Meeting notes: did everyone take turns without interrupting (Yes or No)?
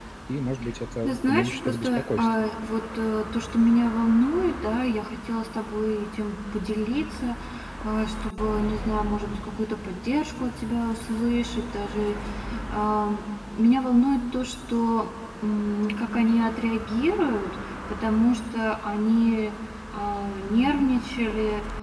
No